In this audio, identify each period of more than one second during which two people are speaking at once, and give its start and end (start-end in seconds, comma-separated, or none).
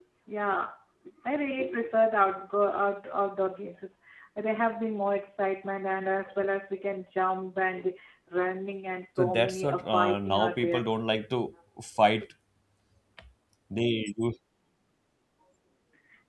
9.2-10.8